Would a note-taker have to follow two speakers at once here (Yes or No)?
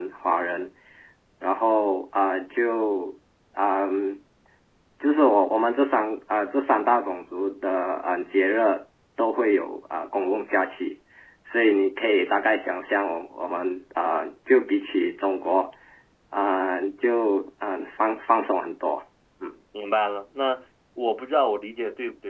No